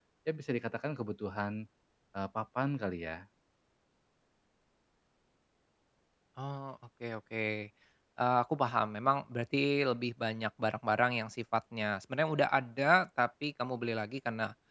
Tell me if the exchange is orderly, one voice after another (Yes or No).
Yes